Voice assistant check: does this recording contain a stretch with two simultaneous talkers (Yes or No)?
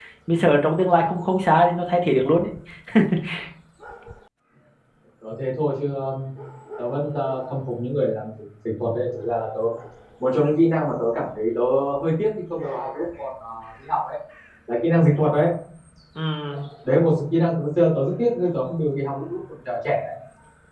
No